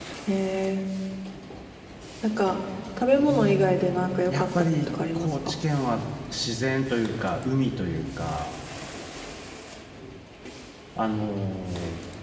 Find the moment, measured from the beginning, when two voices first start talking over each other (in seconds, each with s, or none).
3.1 s